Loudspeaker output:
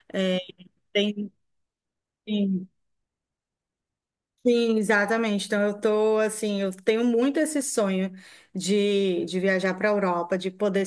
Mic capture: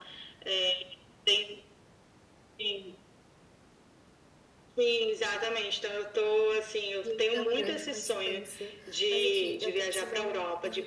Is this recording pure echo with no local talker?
No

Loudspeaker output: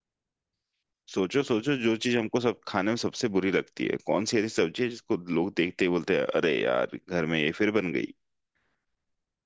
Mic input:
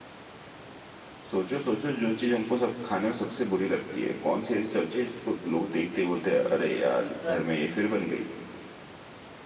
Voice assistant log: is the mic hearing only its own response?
No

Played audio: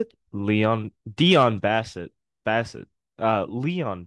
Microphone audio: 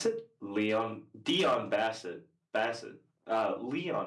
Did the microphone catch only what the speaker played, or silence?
Yes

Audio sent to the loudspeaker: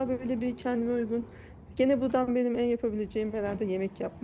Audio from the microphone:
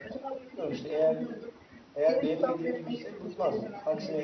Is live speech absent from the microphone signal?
No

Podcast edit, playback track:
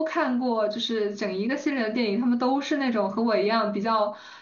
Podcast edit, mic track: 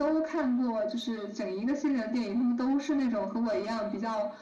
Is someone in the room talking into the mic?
No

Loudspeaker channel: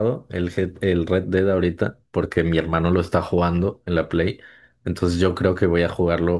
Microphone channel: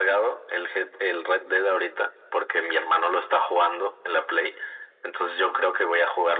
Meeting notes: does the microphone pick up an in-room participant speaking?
No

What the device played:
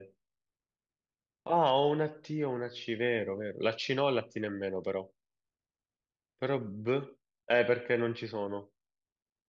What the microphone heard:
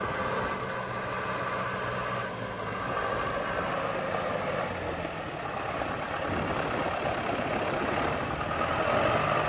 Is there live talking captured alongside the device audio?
No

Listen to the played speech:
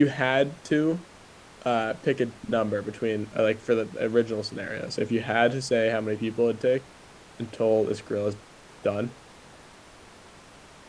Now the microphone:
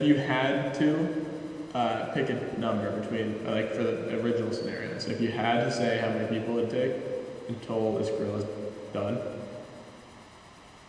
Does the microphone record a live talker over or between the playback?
No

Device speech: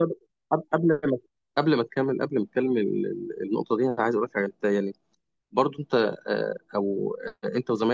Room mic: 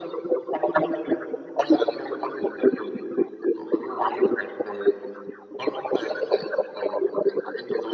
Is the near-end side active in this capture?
No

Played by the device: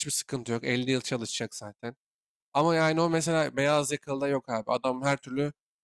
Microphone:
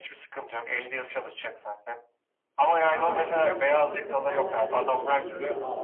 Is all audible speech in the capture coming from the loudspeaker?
No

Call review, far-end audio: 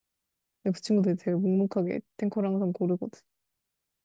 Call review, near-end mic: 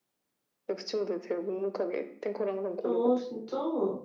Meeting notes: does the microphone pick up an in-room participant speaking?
Yes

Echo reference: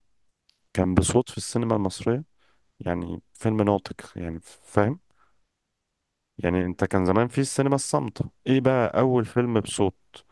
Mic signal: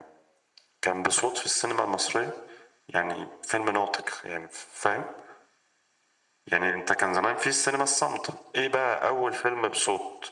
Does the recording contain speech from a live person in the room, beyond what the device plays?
No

